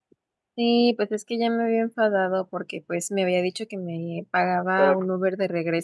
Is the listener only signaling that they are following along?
Yes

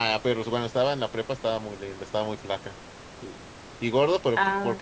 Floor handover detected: No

